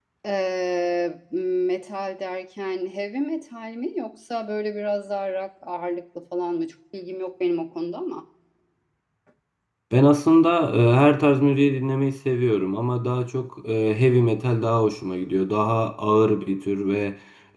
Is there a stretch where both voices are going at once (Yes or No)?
No